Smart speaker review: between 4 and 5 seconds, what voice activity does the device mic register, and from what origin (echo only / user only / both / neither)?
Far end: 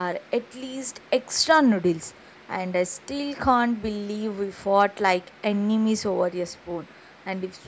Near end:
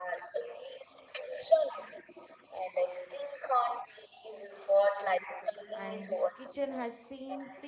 echo only